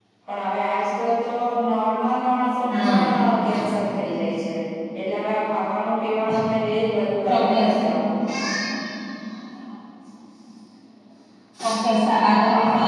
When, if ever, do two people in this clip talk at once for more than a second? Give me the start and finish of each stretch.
none

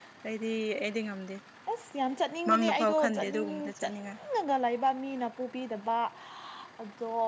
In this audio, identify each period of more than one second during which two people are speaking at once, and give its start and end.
2.5-4.2

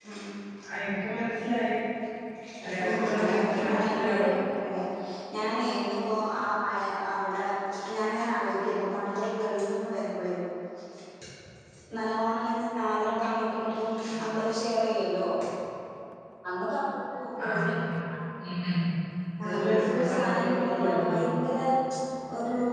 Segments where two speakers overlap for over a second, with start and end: 2.9-4.3, 19.4-21.2

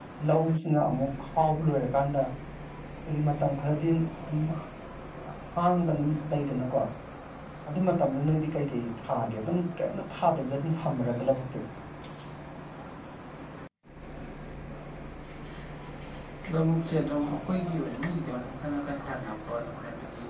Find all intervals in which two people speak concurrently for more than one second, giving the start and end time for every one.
none

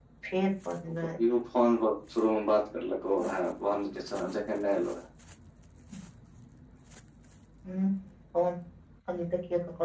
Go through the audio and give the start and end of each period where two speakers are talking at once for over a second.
none

